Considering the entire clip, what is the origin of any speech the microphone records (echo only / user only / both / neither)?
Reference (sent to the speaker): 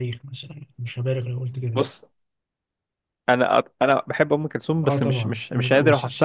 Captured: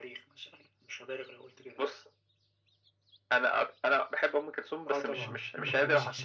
both